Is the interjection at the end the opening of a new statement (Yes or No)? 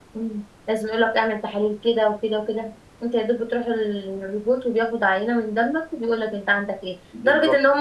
No